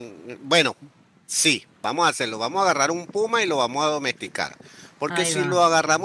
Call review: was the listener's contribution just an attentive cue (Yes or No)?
Yes